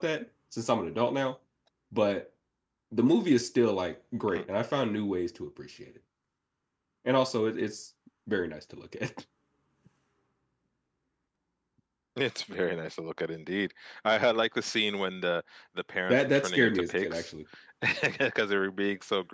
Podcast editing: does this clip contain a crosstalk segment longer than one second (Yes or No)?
Yes